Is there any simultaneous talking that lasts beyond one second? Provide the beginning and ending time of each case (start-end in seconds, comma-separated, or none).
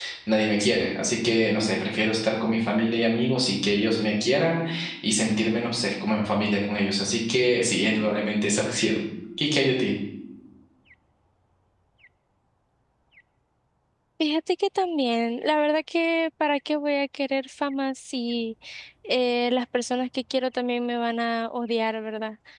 none